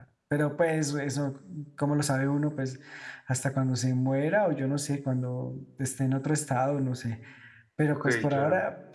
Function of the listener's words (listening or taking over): listening